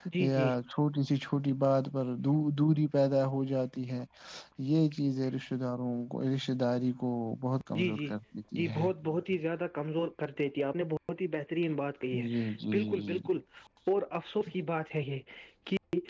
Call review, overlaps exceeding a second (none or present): none